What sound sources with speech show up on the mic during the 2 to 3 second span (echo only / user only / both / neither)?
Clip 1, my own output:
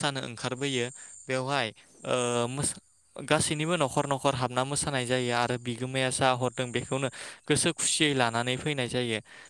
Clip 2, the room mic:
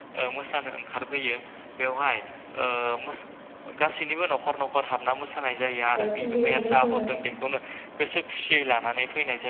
echo only